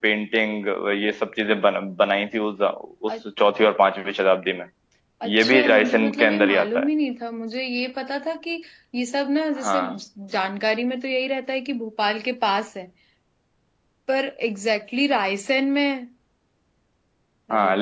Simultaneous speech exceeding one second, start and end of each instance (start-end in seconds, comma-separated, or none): 5.3-6.9